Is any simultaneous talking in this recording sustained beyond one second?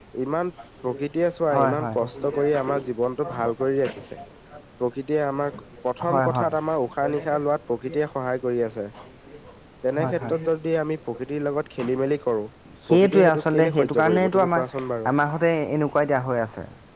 Yes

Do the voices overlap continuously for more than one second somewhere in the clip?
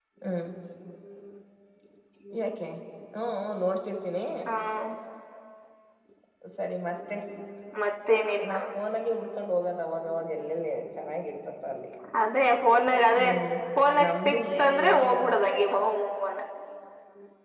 Yes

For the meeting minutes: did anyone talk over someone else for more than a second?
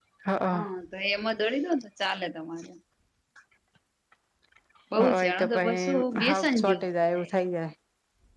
Yes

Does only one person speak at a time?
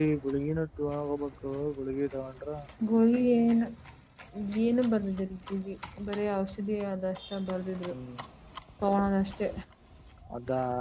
Yes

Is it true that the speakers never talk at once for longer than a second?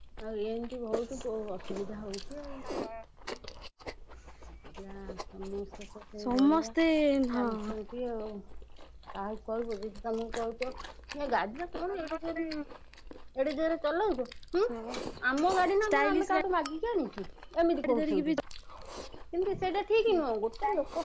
Yes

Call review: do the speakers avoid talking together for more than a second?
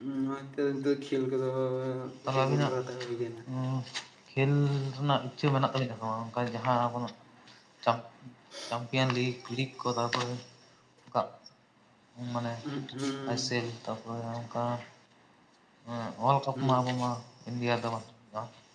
Yes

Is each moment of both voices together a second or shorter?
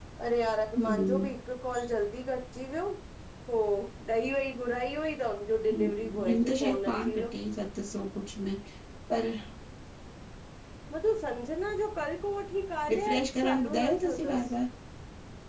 No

